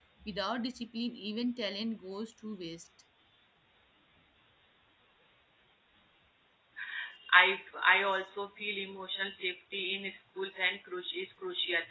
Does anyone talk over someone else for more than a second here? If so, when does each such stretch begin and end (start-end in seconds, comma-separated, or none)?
none